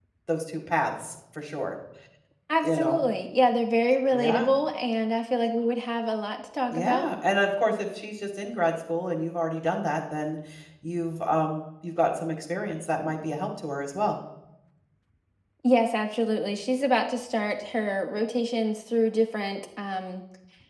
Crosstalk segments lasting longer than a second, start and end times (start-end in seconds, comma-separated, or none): none